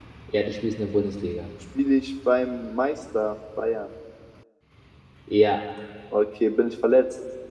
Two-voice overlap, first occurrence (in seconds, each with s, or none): none